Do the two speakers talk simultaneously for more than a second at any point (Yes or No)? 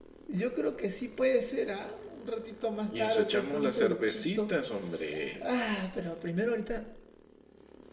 Yes